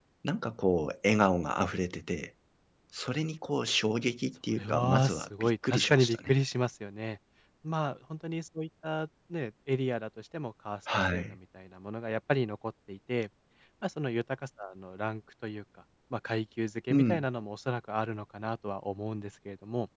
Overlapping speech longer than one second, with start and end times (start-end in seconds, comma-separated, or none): 4.5-6.3